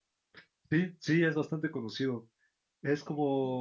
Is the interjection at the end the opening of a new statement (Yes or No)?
No